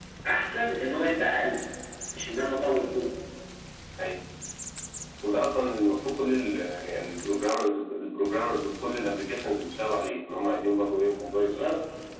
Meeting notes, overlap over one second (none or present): none